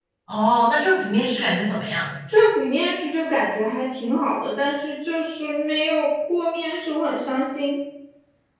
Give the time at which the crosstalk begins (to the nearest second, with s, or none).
none